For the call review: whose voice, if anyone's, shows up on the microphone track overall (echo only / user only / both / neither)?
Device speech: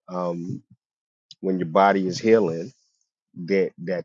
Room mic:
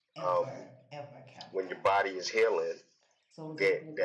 both